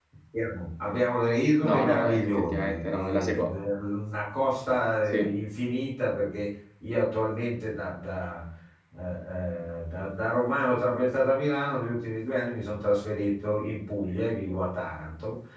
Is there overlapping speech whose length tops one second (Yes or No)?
Yes